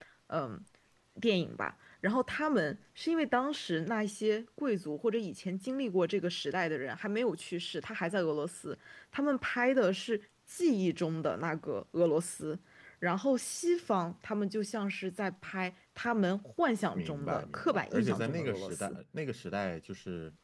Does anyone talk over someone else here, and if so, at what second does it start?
17.0 s

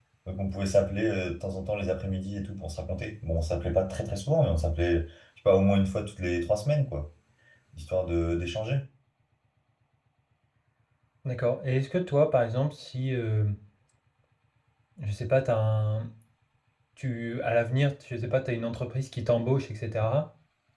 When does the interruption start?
none

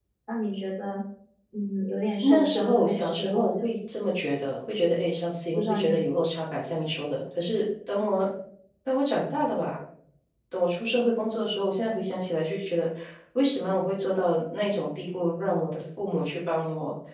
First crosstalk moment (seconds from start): 2.2 s

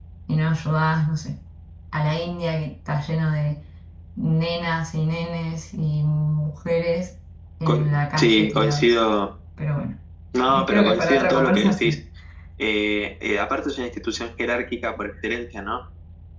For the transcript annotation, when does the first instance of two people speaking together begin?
7.7 s

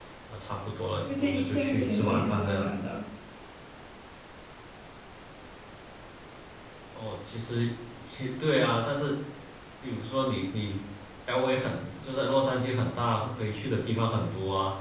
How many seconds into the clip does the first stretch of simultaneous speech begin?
1.1 s

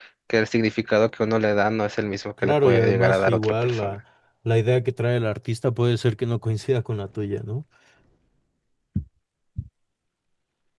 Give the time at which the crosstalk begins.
2.4 s

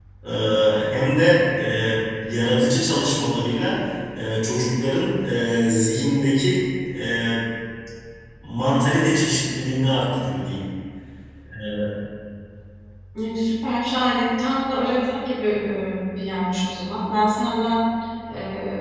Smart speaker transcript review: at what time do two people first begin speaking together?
none

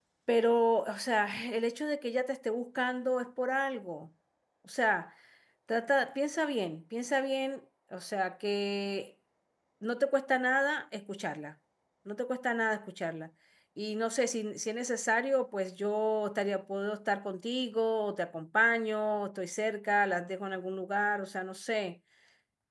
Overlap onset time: none

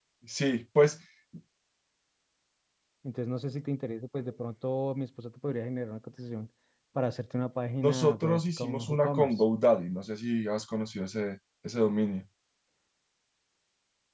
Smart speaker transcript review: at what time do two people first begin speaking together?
7.8 s

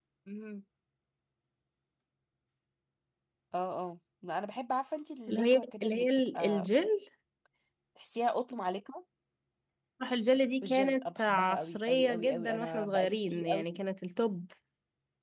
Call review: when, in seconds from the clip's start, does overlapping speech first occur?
5.3 s

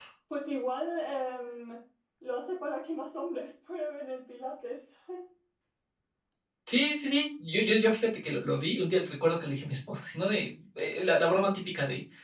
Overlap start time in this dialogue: none

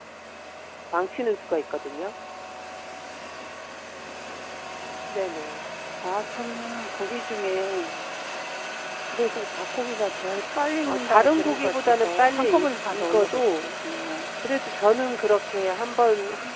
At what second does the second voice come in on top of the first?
10.9 s

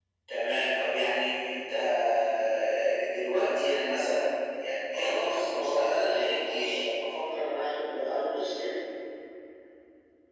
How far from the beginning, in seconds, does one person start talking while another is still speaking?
4.9 s

